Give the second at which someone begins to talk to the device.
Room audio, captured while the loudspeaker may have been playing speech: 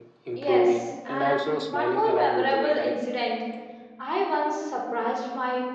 0.4 s

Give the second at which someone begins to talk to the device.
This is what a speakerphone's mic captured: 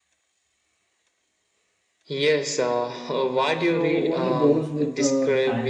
3.5 s

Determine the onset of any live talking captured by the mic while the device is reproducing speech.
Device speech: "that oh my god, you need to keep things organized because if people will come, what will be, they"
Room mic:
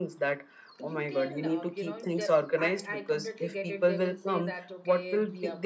0.8 s

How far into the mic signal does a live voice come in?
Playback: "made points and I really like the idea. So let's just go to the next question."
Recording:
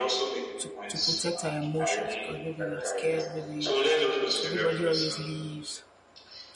0.6 s

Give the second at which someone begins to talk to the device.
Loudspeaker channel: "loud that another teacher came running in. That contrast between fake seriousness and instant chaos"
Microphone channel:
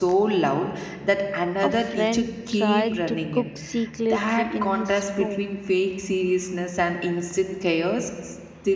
1.6 s

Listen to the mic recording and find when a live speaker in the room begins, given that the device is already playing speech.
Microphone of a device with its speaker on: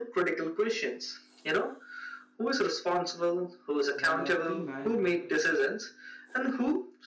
3.9 s

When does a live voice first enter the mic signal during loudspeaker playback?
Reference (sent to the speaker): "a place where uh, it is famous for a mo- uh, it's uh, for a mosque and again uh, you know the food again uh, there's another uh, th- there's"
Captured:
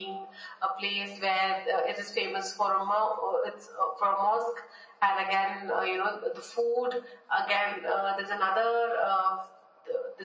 none

